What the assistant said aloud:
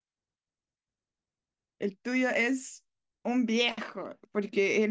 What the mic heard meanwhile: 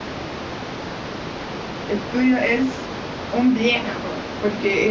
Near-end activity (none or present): none